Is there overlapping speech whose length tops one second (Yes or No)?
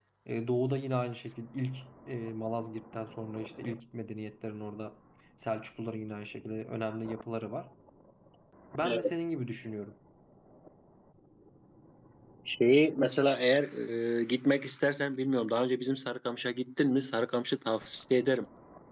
No